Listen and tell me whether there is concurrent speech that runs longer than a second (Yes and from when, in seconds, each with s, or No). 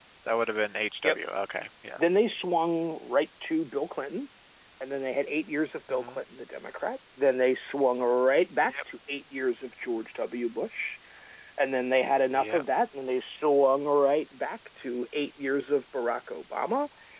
No